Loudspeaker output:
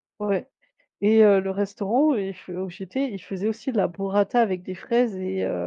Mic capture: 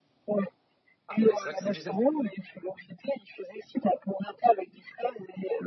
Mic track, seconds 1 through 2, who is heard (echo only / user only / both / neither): both